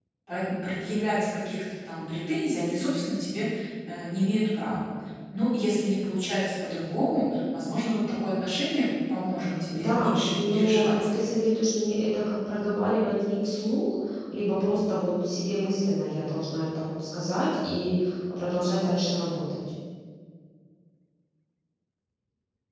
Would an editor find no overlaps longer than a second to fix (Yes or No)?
No